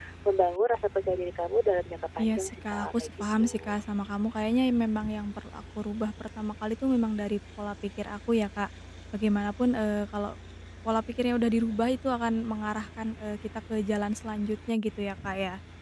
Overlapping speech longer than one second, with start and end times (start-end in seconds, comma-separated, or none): 2.2-3.8